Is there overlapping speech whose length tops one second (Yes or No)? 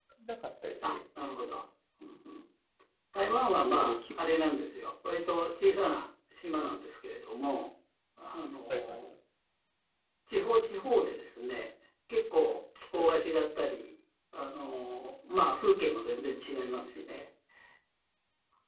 No